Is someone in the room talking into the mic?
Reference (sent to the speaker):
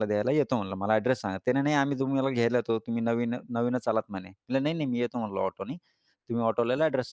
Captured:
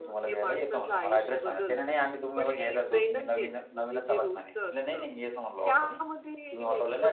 Yes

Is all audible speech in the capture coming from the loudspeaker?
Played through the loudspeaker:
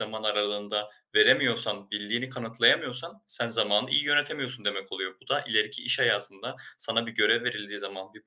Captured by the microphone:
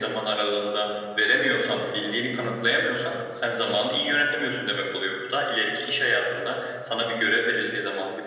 Yes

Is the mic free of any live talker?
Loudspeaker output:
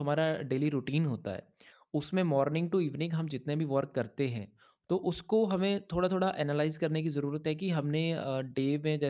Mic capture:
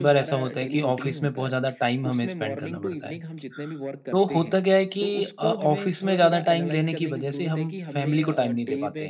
No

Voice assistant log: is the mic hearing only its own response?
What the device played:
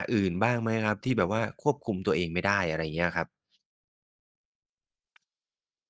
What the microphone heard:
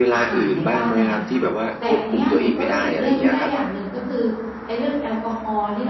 No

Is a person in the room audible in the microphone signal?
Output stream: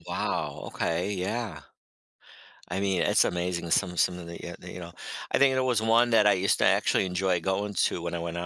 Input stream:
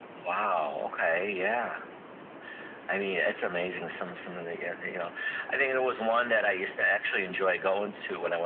No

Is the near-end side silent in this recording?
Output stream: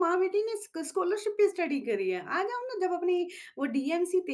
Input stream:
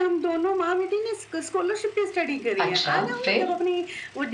No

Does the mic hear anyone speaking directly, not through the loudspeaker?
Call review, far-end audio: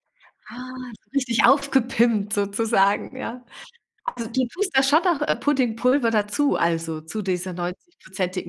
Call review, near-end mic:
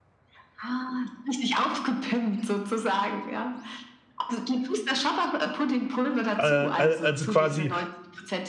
Yes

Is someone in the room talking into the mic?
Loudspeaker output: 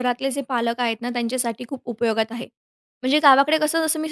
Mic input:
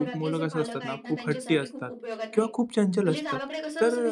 Yes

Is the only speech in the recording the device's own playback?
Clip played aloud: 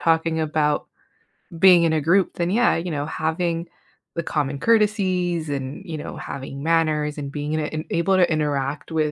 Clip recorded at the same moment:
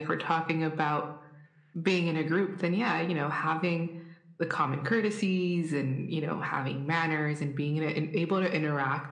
Yes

